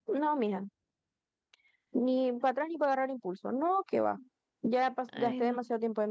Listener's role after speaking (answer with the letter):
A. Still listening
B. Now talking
A